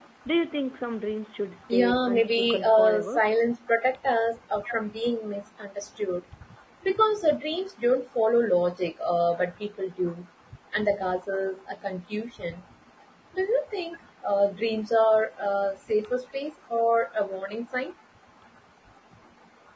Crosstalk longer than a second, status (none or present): present